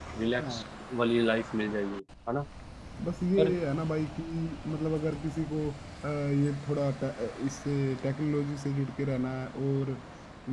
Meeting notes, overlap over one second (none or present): none